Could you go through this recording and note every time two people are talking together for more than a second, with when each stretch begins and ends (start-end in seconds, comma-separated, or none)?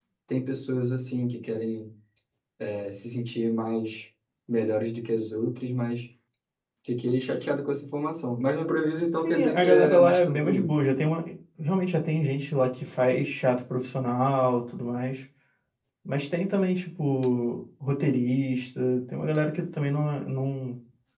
9.2-10.7